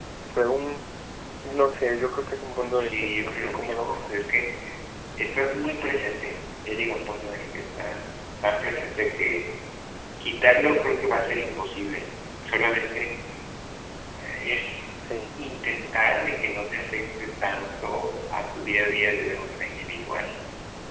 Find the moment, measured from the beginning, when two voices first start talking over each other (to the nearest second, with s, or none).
3 s